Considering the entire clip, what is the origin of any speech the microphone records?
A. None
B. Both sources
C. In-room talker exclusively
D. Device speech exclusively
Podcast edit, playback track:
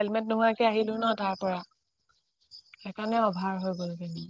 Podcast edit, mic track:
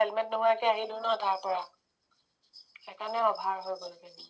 D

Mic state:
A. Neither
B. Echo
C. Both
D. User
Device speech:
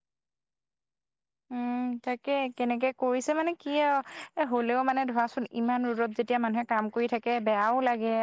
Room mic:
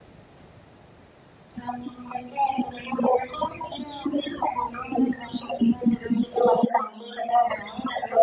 B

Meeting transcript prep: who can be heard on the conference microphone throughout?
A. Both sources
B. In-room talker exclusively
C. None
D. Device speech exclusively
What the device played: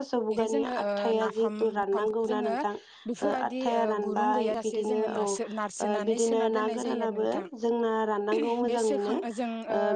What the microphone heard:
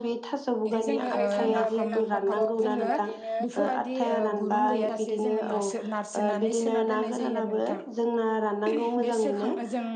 A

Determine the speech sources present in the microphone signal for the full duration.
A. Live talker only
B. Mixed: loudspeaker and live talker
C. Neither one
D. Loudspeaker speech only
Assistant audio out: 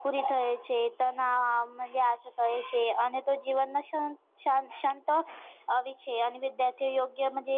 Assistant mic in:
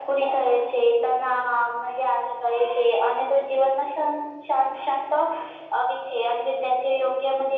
D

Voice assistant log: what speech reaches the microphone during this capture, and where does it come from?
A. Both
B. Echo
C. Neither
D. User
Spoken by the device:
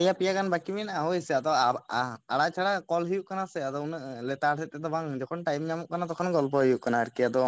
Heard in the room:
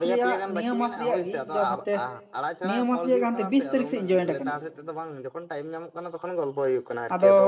A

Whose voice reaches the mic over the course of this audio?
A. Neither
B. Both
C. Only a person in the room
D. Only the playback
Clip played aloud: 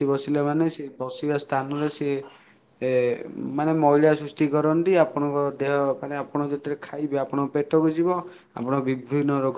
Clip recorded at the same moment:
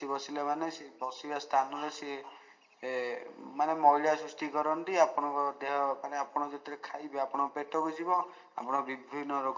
D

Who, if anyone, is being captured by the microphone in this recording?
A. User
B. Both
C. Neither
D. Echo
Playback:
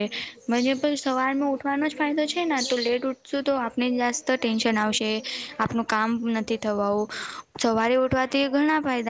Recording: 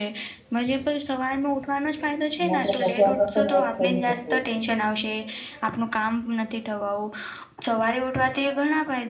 B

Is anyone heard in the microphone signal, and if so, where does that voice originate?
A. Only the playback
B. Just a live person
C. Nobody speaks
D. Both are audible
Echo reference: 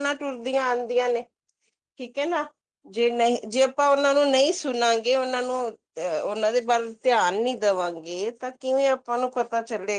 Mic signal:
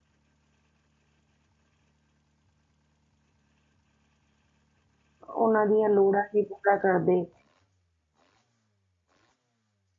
B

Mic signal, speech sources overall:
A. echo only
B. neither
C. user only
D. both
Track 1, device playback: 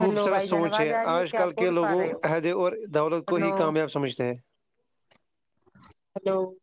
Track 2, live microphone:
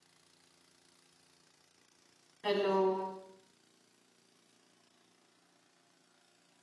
C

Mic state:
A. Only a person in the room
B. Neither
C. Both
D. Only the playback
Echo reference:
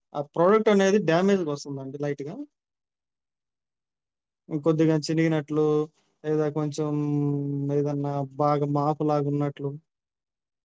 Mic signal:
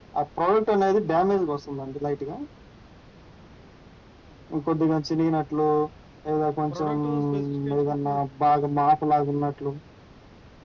C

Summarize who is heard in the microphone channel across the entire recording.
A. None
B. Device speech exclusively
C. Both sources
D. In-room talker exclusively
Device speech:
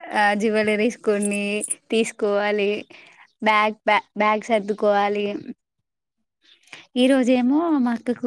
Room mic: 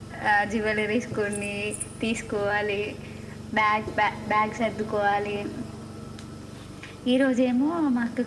B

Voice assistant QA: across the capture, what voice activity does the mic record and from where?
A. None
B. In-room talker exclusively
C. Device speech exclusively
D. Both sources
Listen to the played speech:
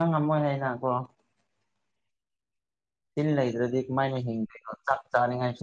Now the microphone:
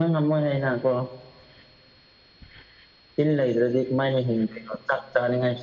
C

